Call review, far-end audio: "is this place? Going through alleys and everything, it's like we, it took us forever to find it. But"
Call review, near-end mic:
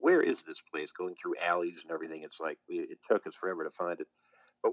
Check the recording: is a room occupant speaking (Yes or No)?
No